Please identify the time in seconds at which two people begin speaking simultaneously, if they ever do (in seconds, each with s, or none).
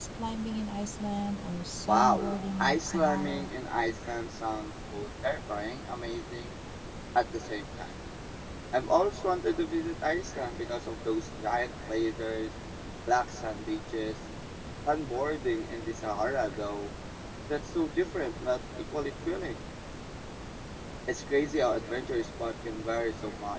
1.9 s